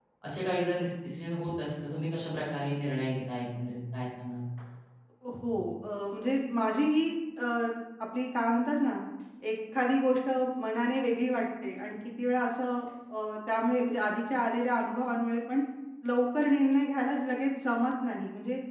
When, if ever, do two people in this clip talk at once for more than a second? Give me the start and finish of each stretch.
none

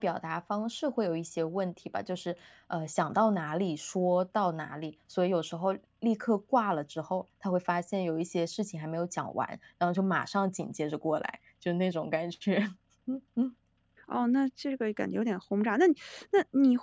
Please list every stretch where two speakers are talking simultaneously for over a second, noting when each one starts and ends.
none

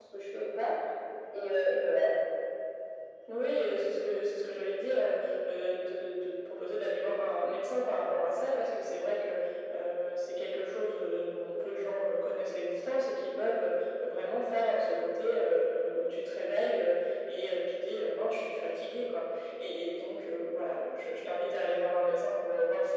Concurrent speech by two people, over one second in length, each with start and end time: none

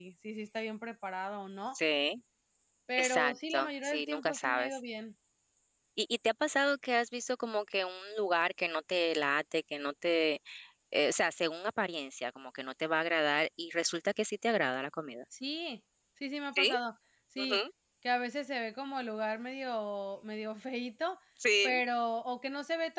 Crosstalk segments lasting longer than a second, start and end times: 3.0-4.8

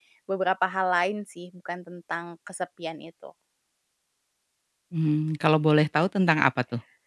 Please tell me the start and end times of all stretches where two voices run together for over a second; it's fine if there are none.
none

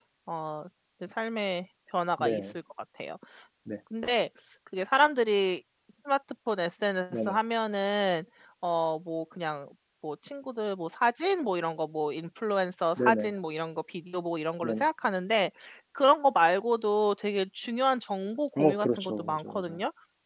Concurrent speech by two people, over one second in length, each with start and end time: 18.6-19.8

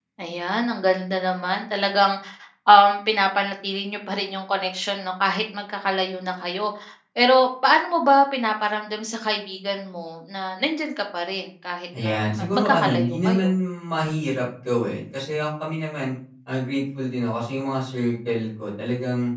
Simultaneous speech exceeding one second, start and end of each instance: 12.0-13.5

